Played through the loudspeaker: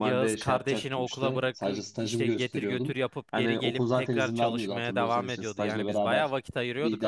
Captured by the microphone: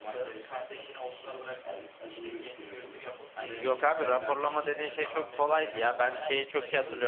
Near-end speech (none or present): present